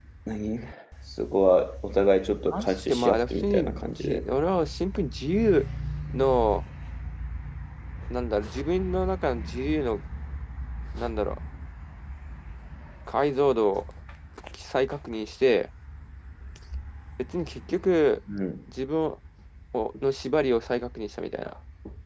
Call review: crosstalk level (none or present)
present